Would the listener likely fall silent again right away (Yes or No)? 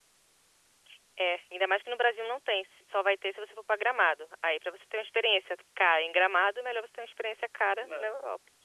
No